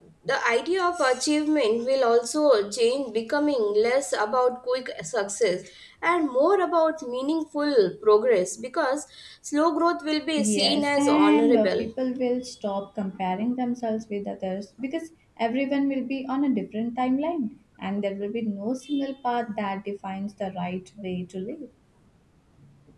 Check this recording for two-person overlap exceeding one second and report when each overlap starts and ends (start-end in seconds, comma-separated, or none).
10.3-11.9